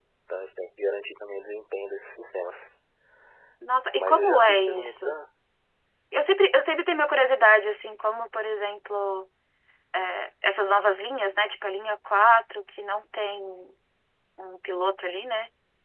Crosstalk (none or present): present